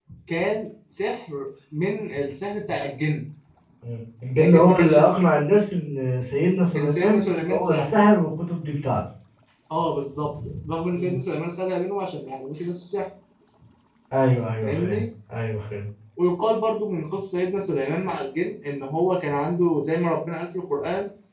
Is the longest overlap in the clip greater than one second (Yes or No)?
Yes